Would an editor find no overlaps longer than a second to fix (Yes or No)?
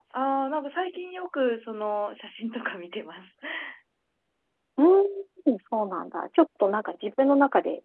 Yes